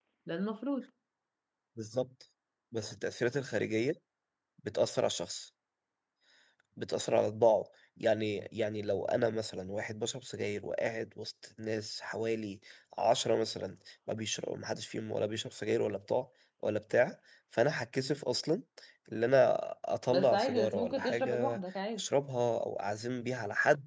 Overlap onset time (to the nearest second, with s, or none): 20 s